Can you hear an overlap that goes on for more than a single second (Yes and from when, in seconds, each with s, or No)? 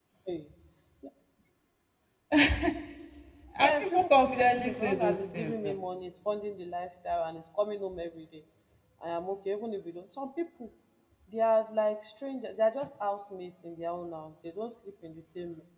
Yes, from 3.6 s